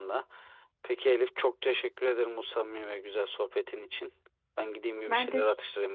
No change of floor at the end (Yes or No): Yes